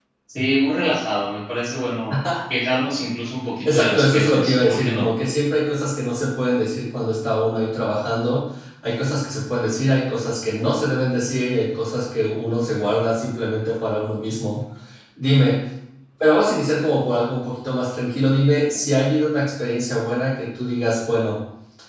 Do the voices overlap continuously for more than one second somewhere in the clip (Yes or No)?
Yes